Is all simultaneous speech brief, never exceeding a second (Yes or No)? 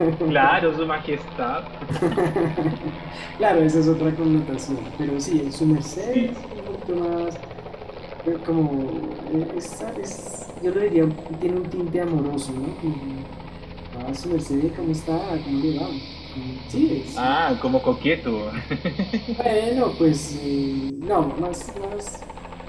Yes